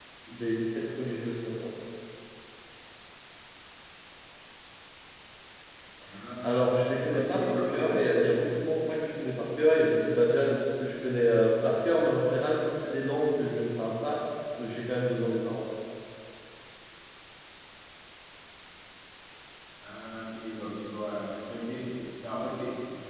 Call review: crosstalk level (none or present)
present